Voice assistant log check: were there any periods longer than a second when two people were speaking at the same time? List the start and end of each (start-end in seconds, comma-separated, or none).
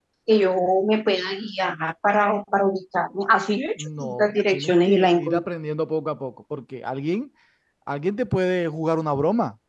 3.8-5.4